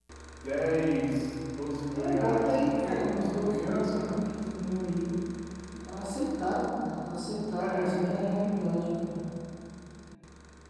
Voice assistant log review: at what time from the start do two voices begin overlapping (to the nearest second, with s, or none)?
2 s